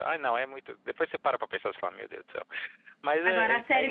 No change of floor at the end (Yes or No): No